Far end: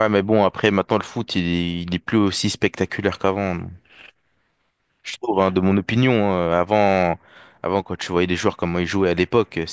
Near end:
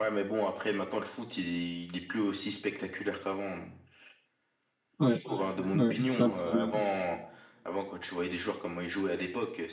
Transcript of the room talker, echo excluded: Ouais, ouais, c'est ça le problème.

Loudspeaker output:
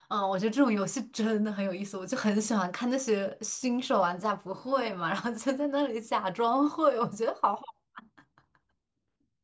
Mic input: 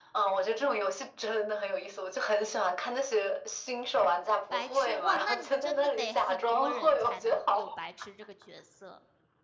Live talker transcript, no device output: 白痴，哇，那你真的得很多人才能有白痴这个角色。

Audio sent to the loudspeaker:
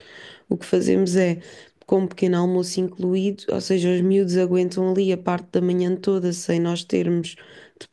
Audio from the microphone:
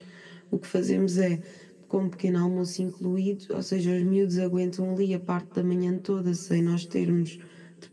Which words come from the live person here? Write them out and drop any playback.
none

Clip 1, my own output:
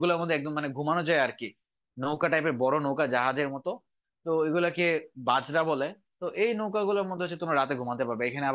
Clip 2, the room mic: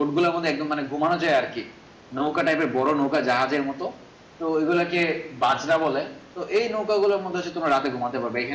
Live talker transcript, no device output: none

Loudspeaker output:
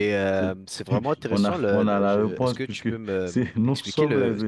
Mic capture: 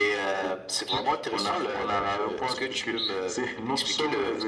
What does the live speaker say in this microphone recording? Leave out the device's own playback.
none

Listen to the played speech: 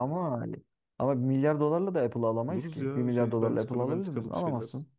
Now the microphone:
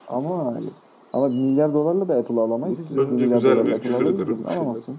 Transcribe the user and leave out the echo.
Önce güzel bir küfür ederim.

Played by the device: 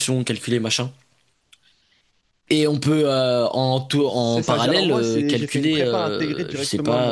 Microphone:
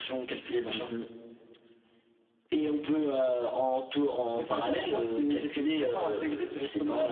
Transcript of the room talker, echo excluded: Mhm.

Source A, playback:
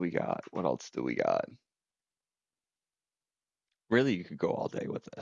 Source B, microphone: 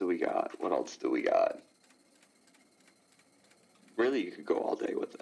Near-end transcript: none

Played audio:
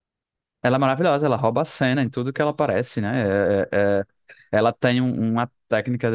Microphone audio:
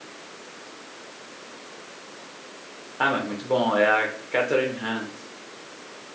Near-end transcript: Ah, mas muito bom. É a Catherine Hahn.

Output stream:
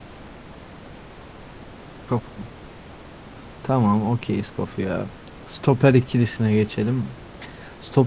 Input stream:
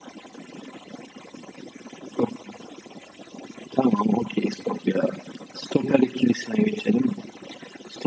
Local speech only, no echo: none

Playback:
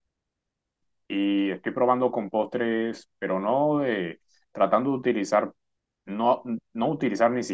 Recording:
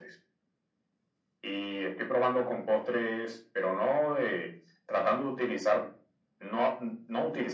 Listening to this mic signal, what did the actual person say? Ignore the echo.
none

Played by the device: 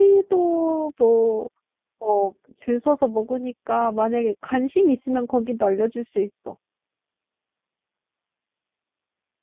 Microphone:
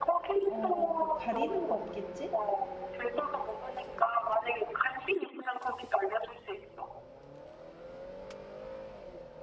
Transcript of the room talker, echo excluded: 어, 뭐 가리는 거 없겠지?

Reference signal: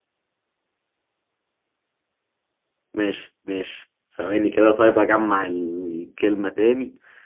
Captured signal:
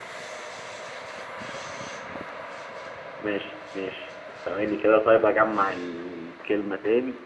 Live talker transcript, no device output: none

